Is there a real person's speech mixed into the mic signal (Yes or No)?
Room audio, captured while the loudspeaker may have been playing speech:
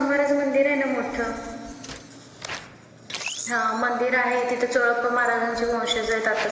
No